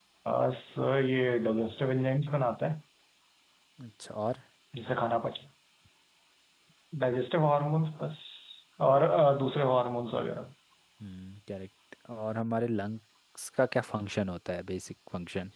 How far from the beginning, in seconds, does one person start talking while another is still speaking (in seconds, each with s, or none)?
none